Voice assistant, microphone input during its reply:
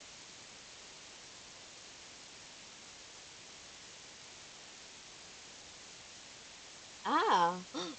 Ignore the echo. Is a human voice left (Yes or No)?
Yes